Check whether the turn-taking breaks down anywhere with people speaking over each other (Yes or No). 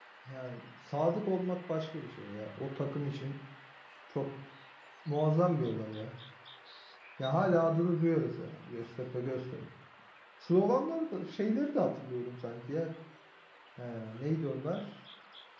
No